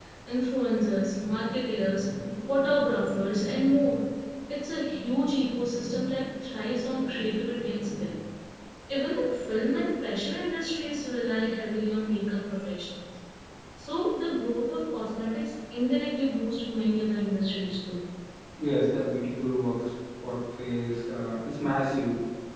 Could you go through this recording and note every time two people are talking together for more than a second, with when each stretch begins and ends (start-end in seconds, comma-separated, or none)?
none